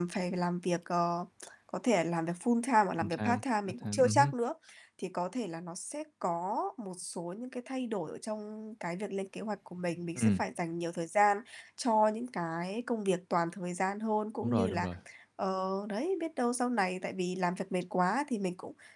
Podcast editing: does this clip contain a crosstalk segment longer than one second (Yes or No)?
Yes